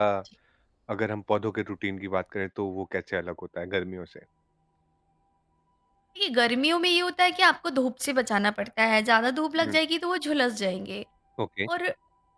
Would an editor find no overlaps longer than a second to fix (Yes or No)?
Yes